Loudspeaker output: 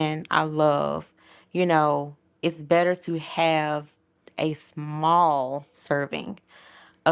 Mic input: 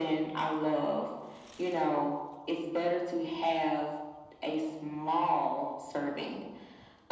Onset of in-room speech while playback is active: none

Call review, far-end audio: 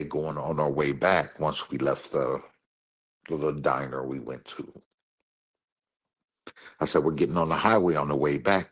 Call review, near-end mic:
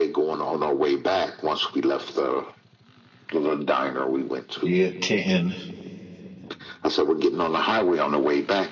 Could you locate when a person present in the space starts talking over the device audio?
4.6 s

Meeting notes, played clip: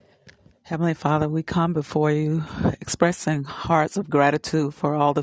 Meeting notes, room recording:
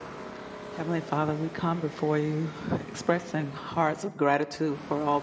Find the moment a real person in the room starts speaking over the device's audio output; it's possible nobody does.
none

